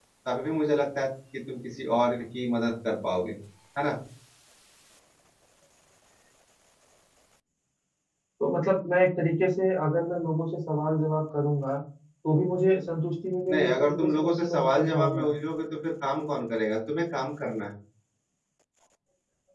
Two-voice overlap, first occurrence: 13 s

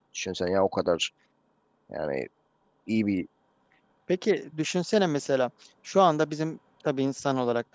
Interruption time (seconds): none

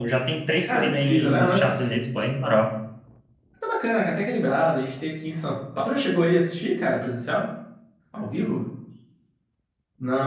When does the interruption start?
1 s

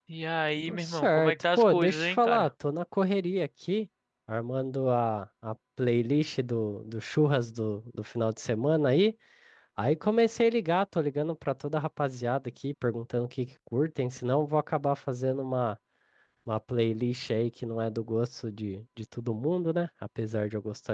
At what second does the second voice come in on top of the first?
1 s

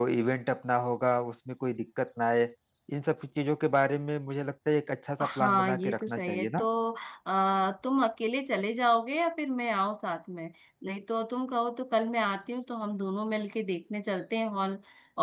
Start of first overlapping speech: 5 s

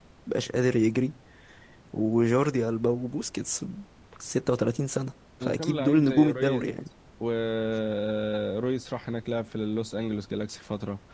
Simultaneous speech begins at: 5 s

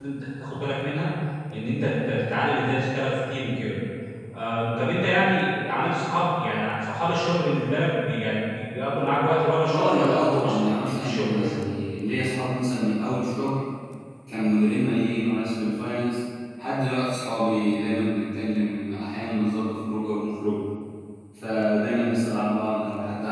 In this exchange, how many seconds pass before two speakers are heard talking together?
10 s

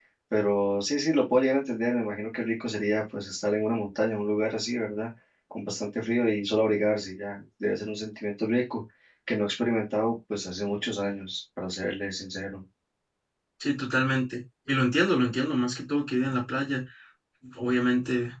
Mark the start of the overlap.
none

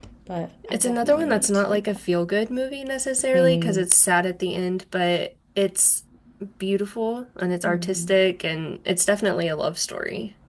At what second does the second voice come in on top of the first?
1 s

